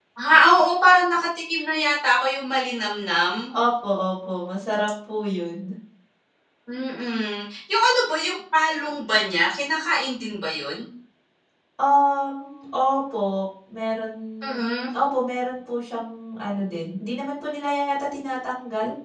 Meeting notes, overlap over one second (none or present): none